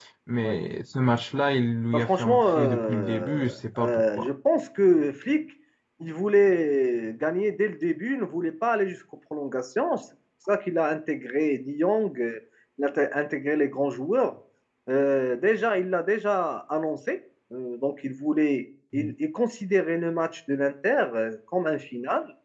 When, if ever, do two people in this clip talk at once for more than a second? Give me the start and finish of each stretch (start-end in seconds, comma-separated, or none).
1.9-3.5